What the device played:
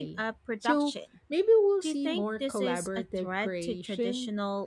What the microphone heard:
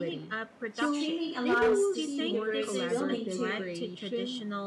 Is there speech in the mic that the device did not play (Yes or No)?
Yes